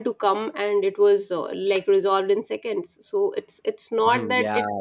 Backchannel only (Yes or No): No